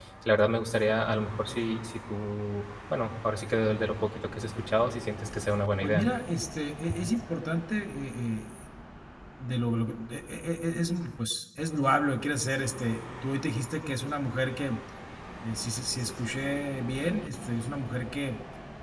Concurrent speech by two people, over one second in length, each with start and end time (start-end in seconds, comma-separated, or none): none